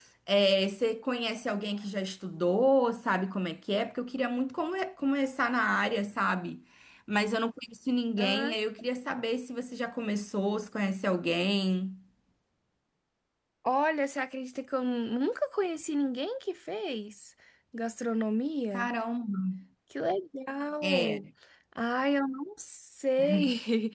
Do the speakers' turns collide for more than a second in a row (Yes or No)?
No